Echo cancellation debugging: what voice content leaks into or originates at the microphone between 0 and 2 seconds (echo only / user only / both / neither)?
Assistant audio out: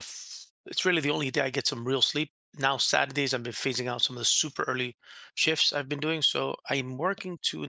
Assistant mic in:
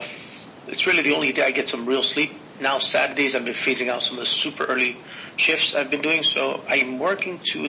echo only